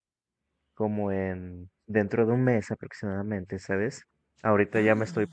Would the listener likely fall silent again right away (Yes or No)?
Yes